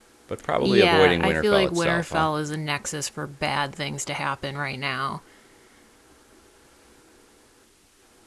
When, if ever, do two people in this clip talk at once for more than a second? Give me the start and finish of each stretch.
0.6-2.2

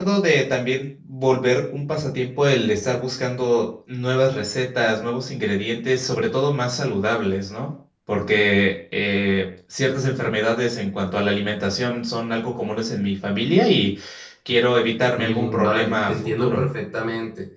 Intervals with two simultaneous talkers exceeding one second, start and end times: 15.2-16.6

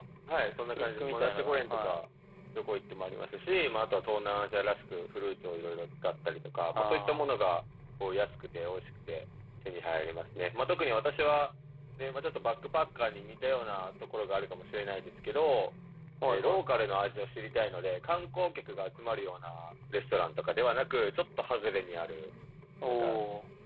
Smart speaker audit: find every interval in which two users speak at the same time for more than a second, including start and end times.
0.8-2.0

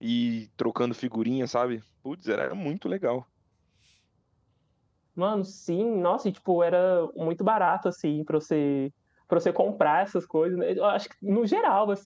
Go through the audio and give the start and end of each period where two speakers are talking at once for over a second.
none

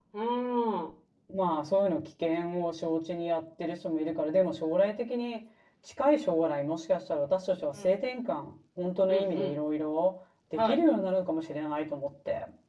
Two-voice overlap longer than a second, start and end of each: none

